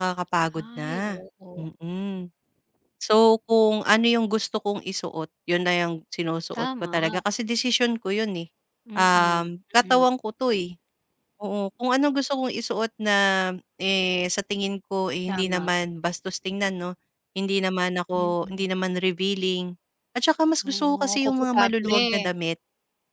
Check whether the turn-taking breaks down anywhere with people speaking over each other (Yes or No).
Yes